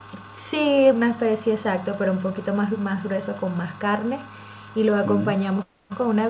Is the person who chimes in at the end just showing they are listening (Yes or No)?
Yes